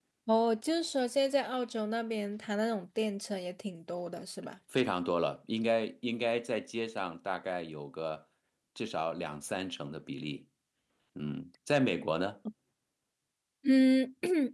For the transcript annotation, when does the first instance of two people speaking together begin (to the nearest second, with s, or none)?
none